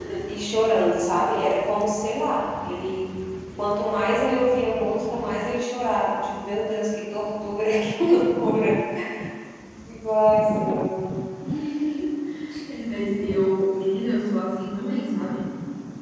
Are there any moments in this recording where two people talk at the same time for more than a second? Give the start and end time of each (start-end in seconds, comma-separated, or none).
none